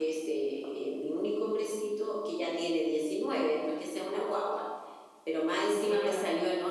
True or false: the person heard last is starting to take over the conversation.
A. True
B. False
B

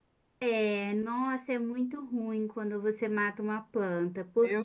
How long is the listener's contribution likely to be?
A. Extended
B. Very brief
B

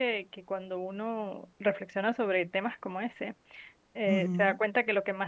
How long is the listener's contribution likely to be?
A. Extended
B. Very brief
B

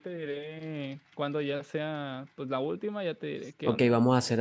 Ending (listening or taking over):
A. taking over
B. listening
A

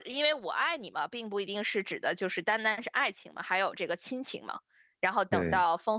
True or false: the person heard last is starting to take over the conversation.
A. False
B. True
A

